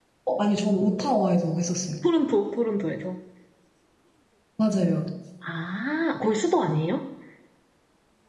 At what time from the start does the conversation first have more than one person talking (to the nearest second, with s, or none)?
none